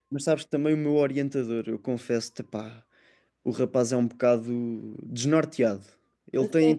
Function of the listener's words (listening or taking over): listening